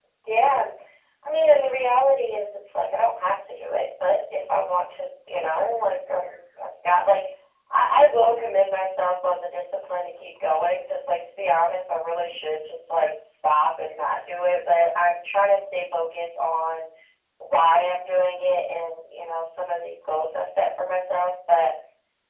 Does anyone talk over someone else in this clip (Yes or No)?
No